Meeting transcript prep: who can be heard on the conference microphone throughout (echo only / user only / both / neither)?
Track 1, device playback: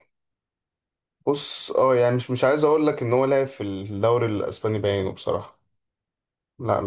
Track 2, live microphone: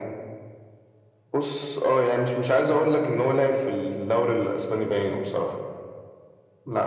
echo only